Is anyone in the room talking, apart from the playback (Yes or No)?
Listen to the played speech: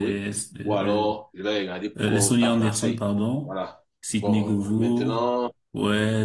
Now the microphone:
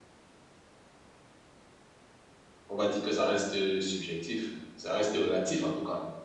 Yes